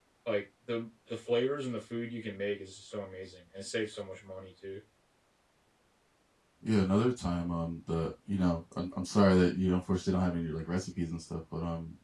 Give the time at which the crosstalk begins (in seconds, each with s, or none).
none